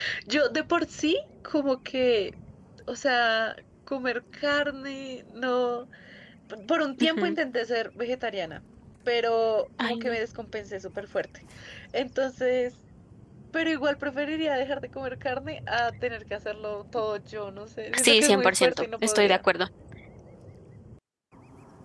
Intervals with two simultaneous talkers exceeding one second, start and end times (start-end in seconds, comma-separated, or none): 18.0-19.4